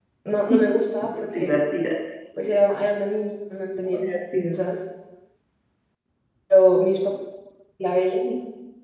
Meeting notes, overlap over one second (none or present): none